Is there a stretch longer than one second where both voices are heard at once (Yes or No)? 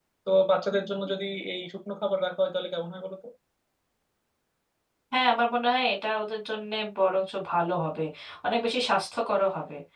No